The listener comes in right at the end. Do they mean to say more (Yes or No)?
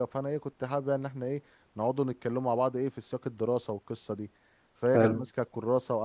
No